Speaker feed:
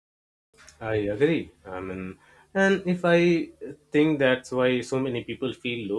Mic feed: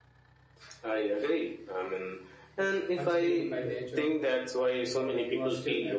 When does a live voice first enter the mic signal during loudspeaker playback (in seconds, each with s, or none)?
2.6 s